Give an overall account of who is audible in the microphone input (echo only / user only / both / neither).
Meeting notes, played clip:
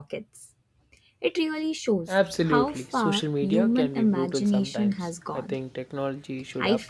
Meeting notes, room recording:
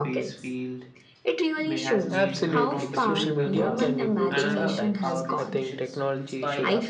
both